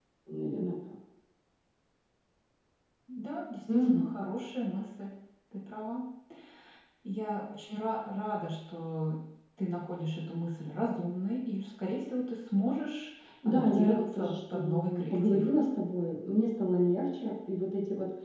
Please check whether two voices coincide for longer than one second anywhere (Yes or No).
Yes